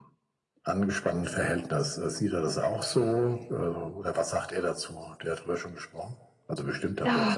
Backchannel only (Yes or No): No